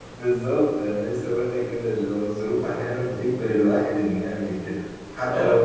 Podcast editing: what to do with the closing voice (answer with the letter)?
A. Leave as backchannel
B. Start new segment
A